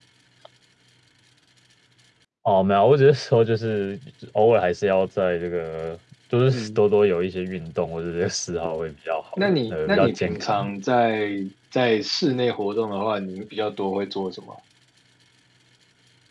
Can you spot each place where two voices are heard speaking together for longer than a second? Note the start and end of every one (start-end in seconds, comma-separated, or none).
9.4-10.6